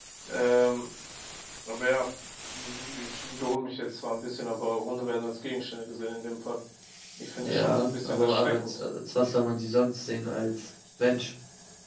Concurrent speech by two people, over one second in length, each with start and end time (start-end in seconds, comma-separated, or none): 7.4-8.8